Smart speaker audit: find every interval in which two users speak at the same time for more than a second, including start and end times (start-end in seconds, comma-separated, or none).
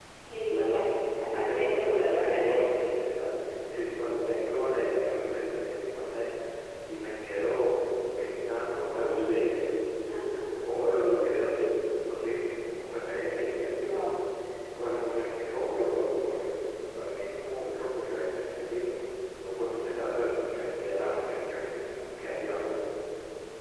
1.3-2.9